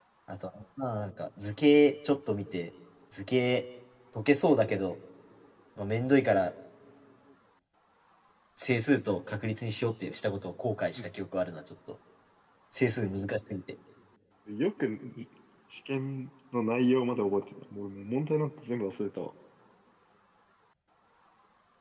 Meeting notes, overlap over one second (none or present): none